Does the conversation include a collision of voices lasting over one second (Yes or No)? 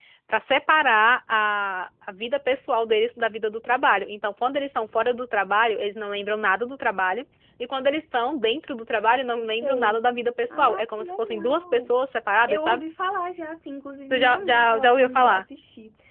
Yes